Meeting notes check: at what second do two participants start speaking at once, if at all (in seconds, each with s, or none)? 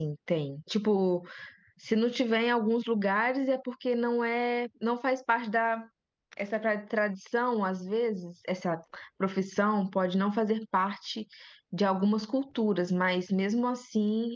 none